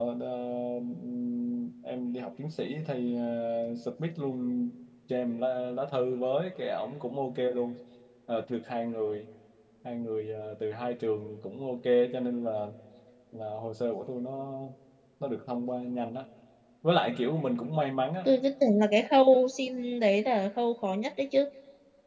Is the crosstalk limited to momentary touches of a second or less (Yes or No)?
Yes